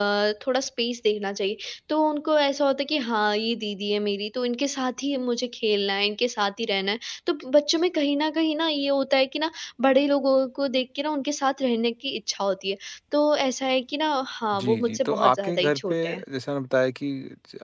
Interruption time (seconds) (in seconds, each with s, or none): 14.5 s